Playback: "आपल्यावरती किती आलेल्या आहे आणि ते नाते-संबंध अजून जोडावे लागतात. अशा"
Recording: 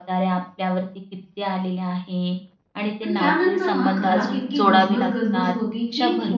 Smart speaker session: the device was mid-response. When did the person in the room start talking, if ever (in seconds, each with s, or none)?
3.0 s